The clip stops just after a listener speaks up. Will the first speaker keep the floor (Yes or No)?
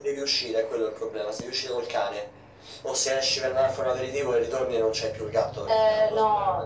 No